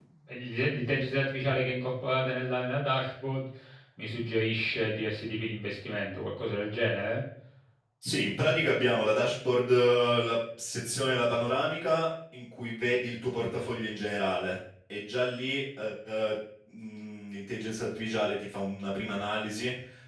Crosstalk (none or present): none